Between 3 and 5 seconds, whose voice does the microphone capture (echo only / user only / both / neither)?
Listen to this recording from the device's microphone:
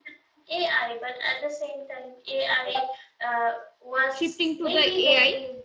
both